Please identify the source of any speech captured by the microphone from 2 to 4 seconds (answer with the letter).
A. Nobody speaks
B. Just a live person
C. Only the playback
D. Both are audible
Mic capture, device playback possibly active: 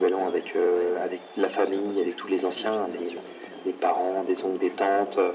D